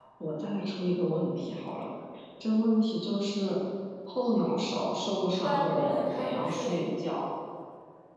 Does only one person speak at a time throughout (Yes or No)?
No